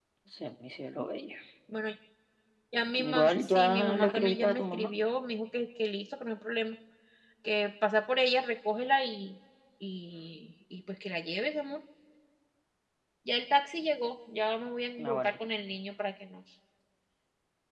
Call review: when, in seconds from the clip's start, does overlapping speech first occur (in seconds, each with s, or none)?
3.1 s